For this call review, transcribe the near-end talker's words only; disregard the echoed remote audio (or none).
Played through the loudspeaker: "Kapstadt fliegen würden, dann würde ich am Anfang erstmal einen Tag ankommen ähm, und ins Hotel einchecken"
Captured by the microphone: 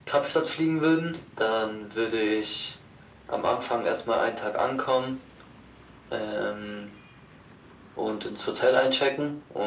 none